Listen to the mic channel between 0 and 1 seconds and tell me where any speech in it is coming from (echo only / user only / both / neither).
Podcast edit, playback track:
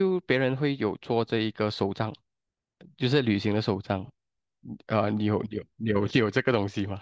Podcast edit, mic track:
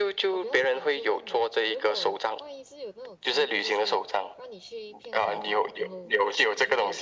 both